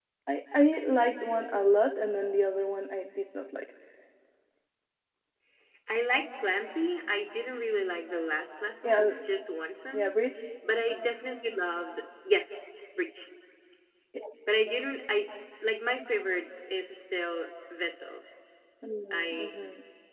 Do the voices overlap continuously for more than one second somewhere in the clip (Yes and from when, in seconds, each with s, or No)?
No